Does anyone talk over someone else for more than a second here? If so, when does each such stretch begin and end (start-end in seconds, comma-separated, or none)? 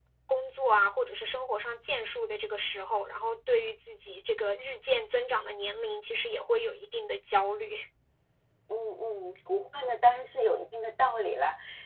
none